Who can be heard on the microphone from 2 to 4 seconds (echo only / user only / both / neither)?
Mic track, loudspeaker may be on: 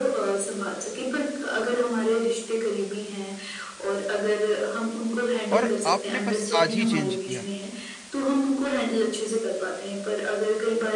echo only